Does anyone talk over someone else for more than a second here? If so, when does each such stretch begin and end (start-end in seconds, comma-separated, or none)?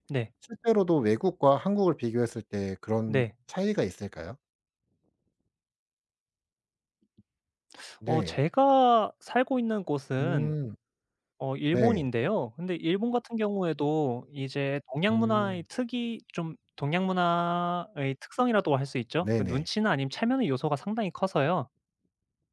none